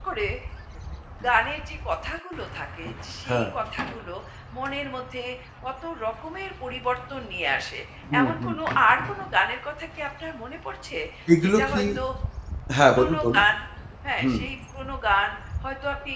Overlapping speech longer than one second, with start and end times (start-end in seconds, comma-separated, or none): none